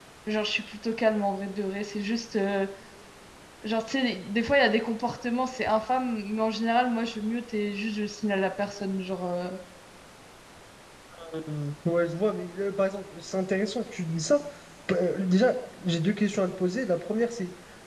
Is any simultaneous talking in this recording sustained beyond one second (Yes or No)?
No